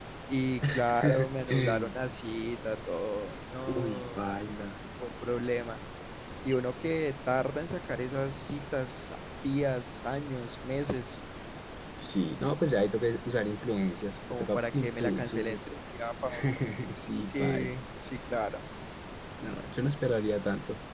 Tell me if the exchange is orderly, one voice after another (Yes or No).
No